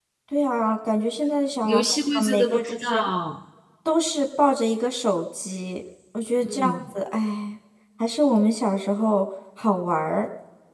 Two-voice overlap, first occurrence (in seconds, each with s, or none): 1.6 s